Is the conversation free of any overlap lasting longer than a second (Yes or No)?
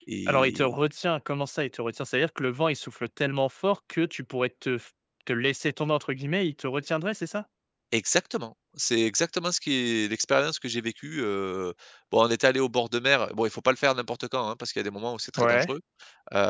Yes